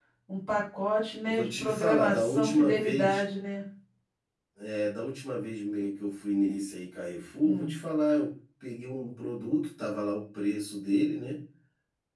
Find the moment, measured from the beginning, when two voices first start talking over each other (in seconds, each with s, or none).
1.3 s